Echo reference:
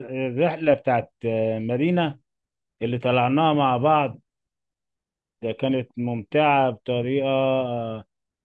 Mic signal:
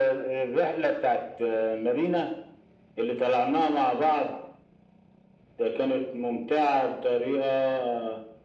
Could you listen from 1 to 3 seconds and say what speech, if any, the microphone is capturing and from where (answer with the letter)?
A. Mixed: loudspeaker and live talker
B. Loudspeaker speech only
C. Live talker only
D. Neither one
B